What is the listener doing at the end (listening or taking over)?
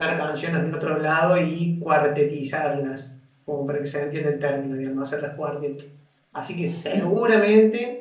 listening